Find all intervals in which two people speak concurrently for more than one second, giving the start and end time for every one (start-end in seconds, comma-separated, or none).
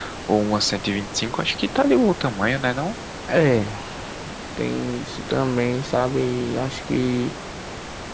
none